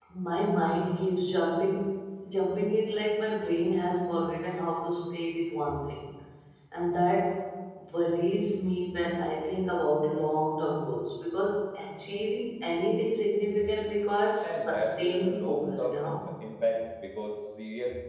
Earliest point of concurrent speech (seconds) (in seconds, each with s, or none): 14.4 s